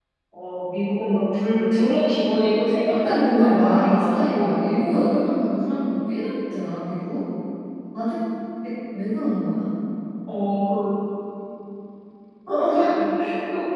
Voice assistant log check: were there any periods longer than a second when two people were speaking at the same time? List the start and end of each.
2.9-4.6

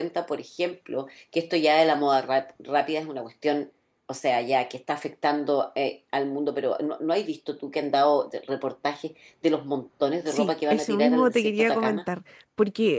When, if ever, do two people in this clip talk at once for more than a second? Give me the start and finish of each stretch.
10.3-12.0

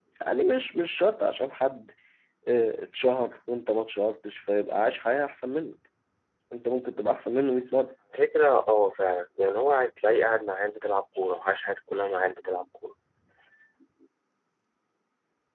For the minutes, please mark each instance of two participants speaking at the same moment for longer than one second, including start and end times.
none

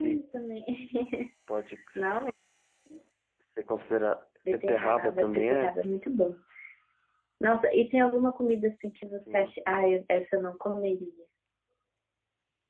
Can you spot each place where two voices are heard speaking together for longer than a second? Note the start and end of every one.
4.5-5.7

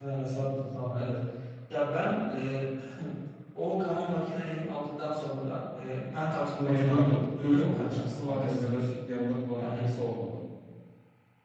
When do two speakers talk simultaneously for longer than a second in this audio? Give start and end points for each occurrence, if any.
6.6-8.9

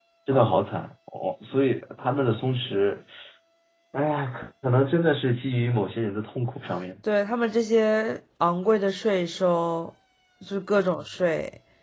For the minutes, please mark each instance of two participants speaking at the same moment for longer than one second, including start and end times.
none

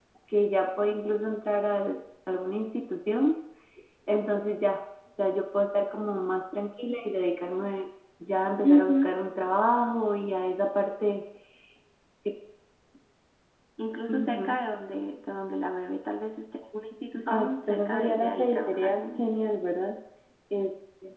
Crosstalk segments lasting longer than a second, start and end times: 17.2-19.2

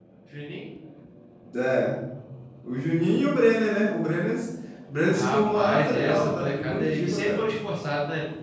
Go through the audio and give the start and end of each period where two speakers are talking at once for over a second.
5.1-7.4

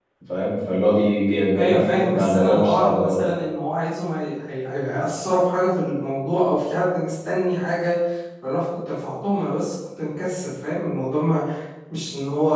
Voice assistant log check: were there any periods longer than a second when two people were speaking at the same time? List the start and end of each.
1.6-3.2

